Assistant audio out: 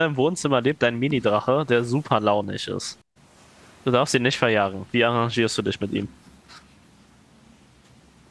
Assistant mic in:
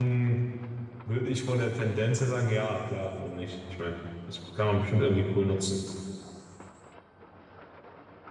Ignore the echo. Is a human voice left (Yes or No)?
Yes